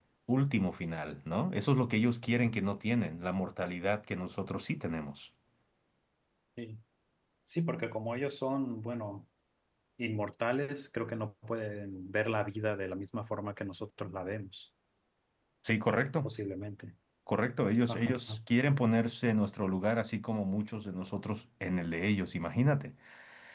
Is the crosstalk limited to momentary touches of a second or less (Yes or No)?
Yes